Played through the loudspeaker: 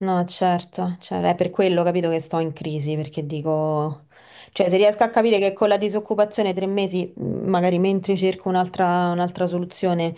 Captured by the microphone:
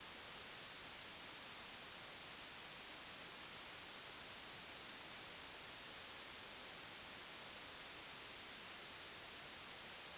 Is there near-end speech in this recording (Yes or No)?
No